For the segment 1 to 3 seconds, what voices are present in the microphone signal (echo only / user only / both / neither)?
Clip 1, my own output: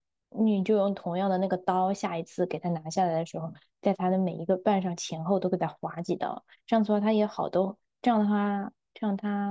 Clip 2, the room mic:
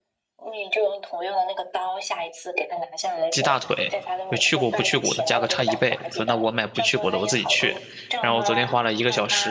echo only